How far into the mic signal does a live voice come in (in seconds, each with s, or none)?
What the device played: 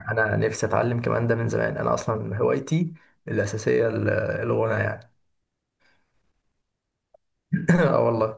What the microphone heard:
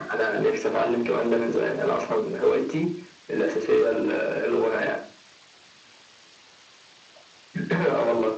none